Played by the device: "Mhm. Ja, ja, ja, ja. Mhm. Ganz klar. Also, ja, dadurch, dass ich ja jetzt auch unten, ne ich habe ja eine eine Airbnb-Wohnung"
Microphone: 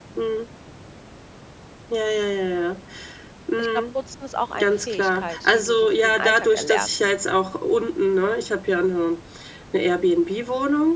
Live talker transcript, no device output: Ich glaube, Putzen ist auch eine Fähigkeit, die du so für den Alltag erlernst.

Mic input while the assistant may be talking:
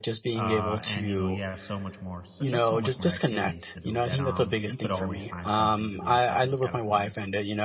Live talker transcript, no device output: uh, and you know, you have so much more, so just so much more activities to do that um you could always find something to do in Southern California.

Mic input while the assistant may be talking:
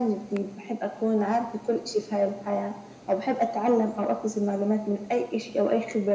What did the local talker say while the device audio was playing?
none

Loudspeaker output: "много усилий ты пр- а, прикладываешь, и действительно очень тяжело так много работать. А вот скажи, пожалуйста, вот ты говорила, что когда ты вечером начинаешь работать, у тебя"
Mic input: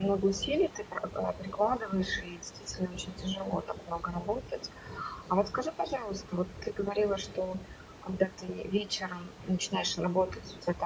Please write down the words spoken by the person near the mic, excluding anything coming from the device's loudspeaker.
none

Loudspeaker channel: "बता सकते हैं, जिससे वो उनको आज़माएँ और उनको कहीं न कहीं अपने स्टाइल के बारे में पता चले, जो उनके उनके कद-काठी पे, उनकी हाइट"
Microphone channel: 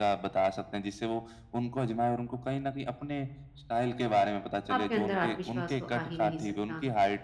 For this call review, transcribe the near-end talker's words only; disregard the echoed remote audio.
आपके अंदर आत्मविश्वास तो आ ही नहीं सकता।

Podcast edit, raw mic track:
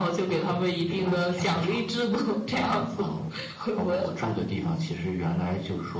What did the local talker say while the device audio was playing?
none

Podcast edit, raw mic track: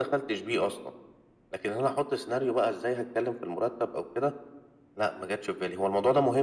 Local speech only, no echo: none

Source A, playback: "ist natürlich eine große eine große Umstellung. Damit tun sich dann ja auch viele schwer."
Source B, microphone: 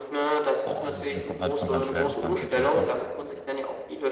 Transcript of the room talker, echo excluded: Boah, es ist mir von Anfang an schwergefallen tatsächlich.

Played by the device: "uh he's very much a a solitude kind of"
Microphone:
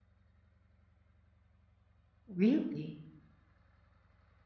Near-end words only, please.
Really?

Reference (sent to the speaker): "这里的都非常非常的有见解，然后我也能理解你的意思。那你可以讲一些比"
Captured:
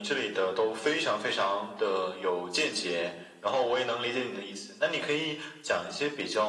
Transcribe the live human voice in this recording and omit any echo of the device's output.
none

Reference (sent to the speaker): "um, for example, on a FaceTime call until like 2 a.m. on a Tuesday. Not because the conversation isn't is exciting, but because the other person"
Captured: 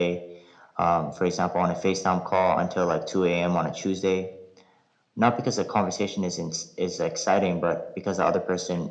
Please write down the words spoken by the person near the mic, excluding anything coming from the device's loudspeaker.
none

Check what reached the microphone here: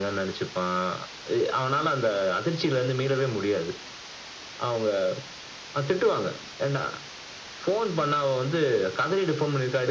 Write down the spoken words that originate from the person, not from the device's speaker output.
none

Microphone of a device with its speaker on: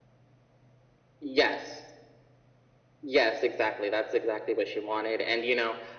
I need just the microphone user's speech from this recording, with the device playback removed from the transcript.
none

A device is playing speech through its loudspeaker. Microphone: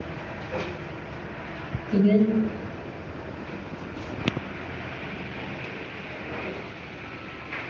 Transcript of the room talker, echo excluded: mh-mh.

